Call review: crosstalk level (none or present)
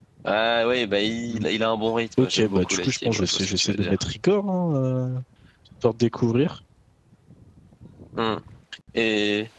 present